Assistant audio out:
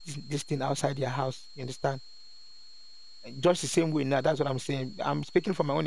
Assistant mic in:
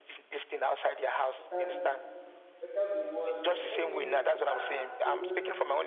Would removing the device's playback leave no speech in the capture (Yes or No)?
No